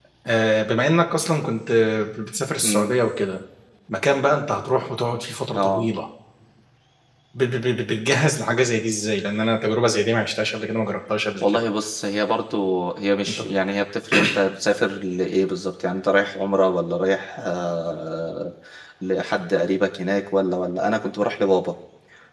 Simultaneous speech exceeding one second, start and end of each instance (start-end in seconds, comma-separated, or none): none